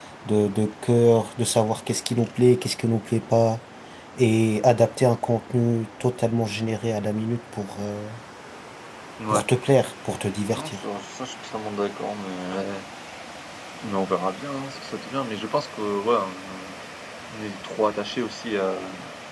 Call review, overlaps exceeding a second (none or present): none